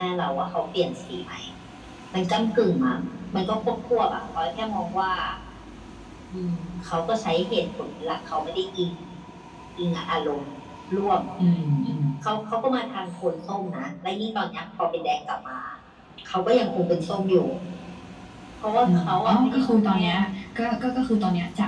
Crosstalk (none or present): present